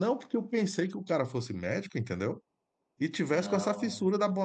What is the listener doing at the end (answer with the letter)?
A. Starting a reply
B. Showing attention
B